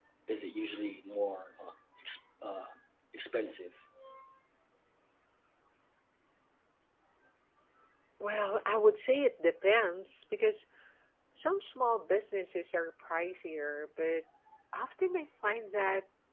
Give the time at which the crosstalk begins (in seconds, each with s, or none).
none